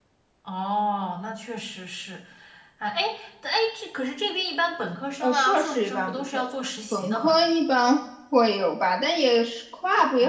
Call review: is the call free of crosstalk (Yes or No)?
No